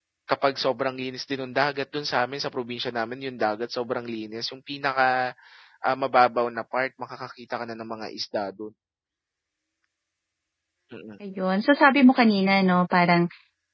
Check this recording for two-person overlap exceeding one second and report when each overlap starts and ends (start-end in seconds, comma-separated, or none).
none